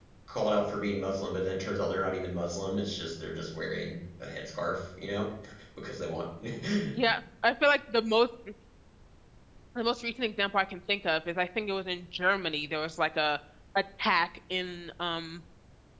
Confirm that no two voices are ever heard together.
Yes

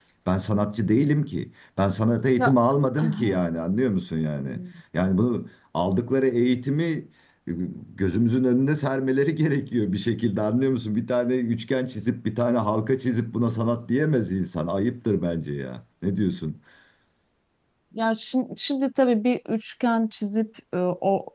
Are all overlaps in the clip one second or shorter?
Yes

